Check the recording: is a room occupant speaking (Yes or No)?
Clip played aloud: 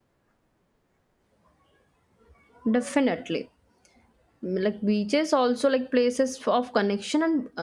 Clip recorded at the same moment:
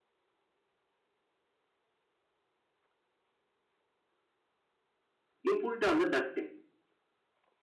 Yes